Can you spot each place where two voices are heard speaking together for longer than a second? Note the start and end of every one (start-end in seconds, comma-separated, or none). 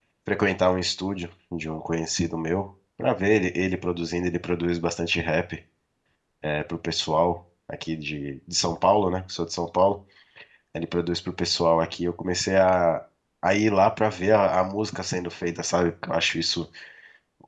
none